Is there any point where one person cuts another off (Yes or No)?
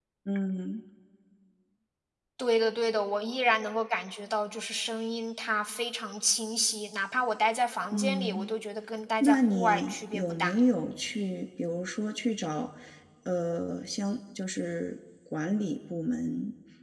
Yes